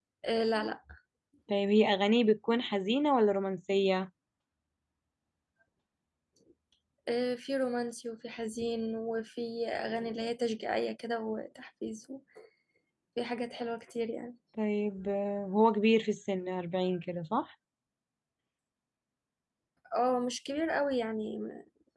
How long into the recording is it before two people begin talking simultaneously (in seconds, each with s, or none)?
none